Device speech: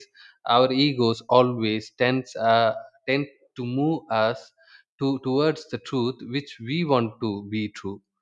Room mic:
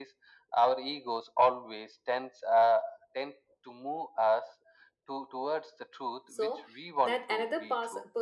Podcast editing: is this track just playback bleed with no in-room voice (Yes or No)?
No